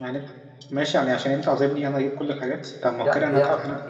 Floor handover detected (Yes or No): Yes